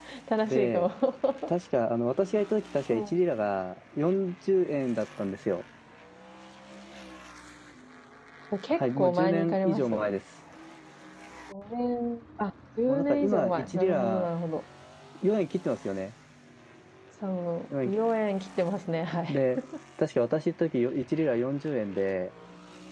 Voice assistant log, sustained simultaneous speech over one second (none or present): present